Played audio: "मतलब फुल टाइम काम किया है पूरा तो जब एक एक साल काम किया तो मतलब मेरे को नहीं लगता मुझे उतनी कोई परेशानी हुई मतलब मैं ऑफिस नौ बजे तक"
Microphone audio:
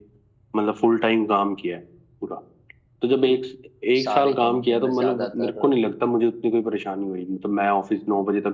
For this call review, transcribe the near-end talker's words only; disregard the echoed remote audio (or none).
सारी कंपनियों में ज्यादातर